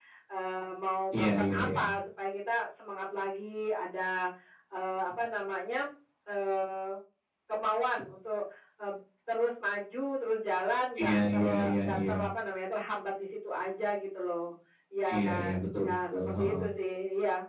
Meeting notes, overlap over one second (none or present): present